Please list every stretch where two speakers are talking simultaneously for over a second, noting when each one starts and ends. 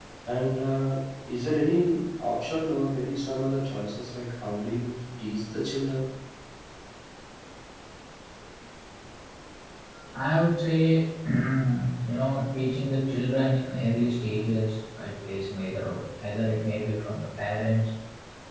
none

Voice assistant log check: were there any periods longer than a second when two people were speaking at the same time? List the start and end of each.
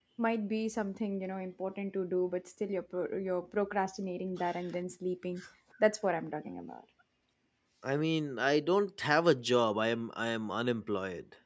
none

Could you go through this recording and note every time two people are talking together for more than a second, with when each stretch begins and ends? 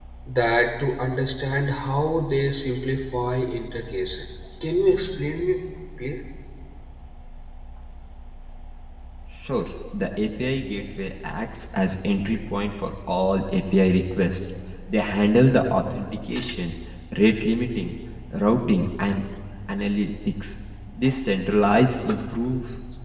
none

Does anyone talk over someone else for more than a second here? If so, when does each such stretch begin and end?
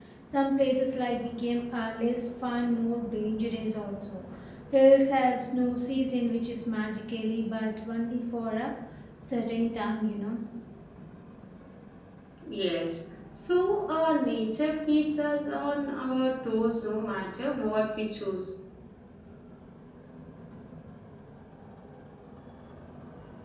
none

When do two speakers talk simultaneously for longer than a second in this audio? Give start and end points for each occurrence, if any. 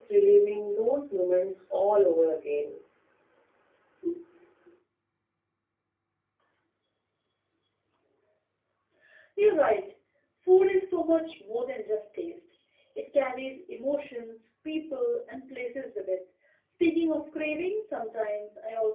none

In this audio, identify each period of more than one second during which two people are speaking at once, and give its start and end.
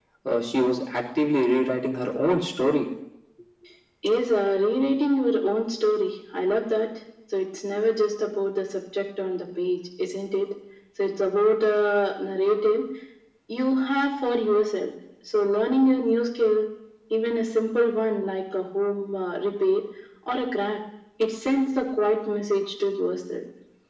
none

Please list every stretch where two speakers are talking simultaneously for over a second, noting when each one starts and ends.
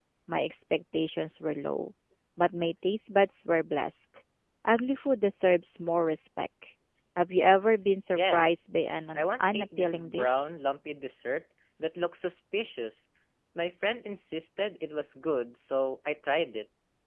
9.2-10.4

